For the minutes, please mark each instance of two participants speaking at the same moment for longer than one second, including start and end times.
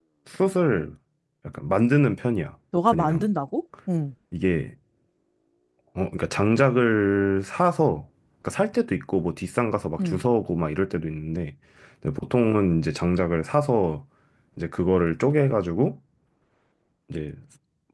none

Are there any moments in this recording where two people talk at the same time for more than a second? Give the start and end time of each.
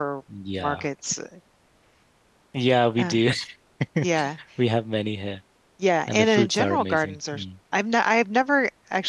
6.1-7.4

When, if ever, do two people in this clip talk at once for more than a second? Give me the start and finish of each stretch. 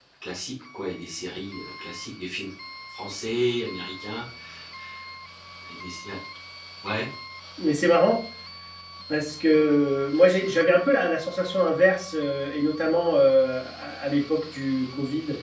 none

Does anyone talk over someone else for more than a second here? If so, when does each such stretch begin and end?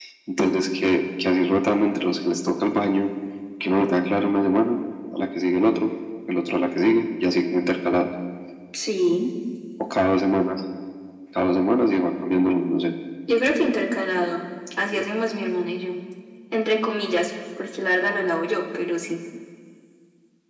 none

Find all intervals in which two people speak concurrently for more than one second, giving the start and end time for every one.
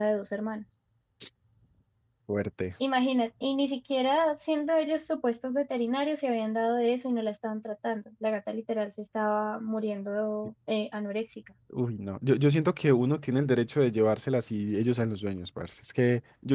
none

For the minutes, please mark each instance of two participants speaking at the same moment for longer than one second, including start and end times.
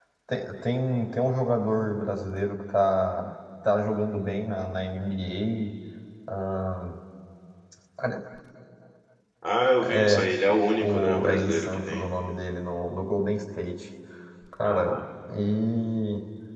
10.8-12.1

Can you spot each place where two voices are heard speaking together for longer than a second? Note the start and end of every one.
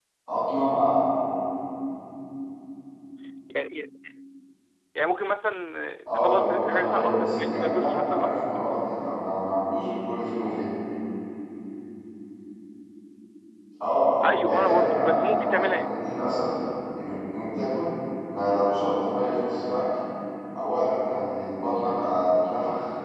6.1-8.4, 14.2-15.9

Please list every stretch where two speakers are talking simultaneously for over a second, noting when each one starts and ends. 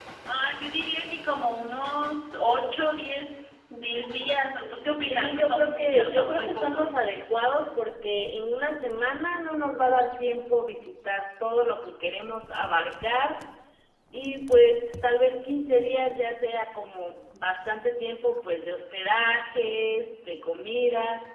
5.1-6.9

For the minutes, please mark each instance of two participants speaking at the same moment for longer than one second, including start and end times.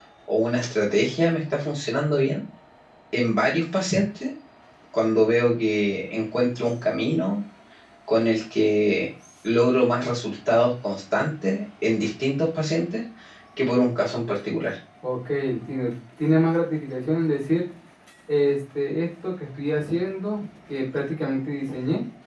none

